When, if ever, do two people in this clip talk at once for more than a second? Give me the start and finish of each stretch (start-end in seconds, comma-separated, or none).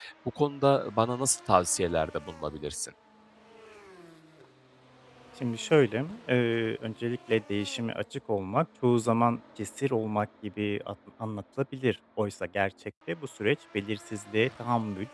none